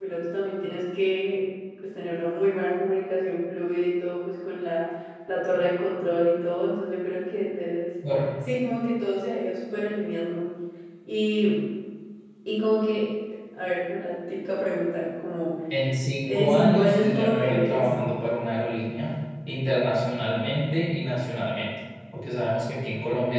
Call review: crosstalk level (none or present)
present